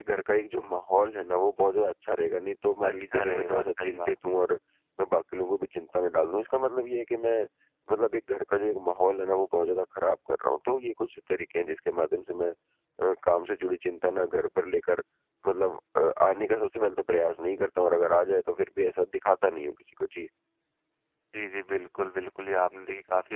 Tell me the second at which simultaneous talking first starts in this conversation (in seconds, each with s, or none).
2.8 s